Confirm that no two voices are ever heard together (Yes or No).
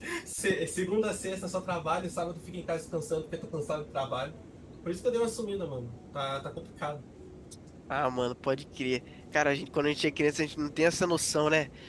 Yes